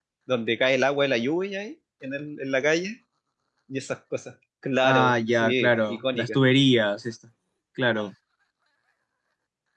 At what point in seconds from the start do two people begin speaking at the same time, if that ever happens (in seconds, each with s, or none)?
4.8 s